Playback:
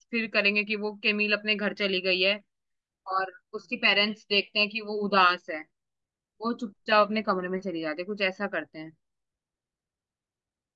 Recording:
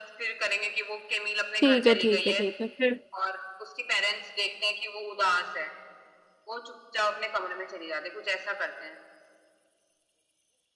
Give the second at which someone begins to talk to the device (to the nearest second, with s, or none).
2 s